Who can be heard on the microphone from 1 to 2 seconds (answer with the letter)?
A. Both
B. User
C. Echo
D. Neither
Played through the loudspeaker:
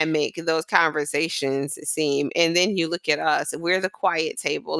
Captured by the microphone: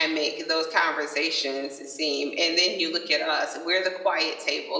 C